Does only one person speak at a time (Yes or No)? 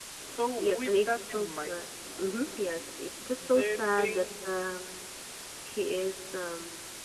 No